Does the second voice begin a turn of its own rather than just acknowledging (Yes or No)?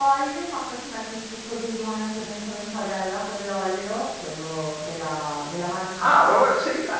Yes